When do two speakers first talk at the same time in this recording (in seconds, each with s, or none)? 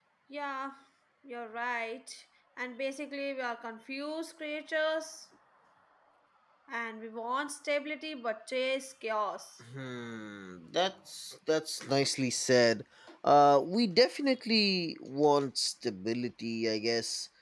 none